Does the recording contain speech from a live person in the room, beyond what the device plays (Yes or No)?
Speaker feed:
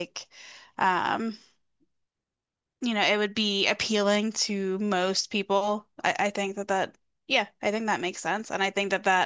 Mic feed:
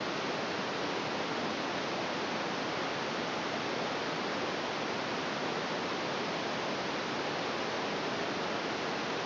No